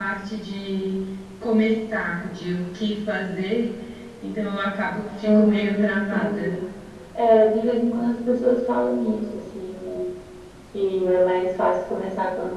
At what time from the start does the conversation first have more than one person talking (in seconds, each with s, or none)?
5.2 s